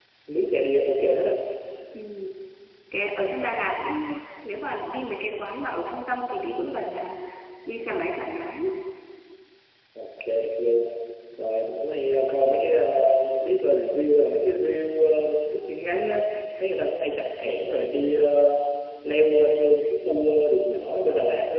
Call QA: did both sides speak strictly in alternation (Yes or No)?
Yes